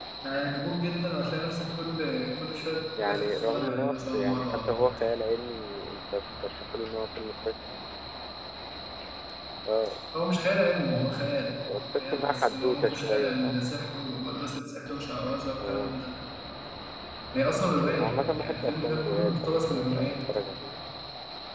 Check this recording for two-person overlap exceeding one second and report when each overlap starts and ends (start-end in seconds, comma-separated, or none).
3.0-5.1, 12.0-13.6, 17.7-20.1